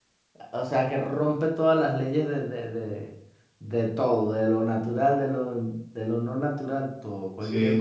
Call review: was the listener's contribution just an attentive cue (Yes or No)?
No